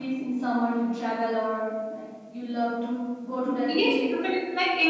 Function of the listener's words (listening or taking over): taking over